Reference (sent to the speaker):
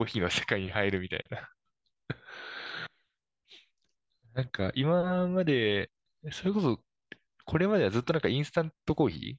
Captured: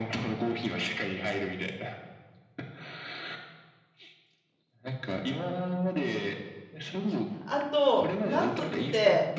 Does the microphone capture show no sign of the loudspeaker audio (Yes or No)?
No